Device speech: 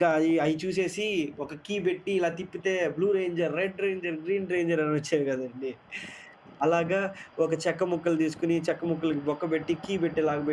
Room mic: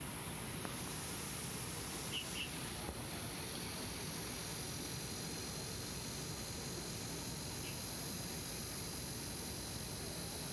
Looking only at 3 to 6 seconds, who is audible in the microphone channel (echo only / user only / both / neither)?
neither